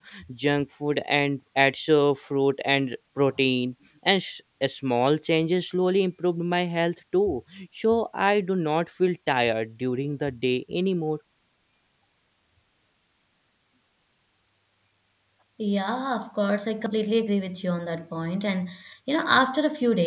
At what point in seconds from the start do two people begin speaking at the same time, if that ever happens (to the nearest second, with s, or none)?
none